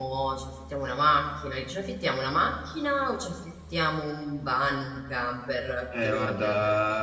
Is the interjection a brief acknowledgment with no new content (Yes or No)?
No